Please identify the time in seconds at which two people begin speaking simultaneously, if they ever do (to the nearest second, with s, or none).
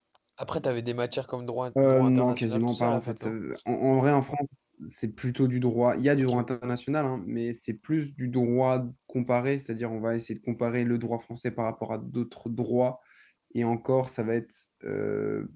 2 s